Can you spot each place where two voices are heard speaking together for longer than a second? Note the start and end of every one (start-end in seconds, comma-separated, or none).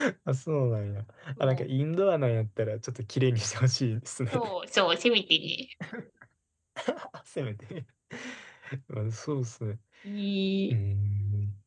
none